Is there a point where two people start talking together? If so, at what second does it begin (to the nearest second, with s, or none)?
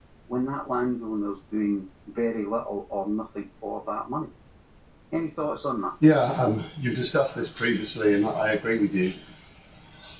none